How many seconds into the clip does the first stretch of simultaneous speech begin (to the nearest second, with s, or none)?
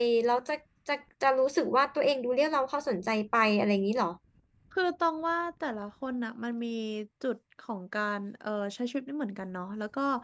none